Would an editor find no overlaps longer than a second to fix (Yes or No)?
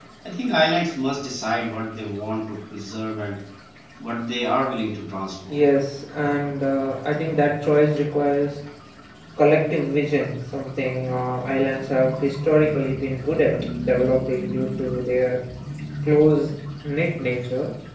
Yes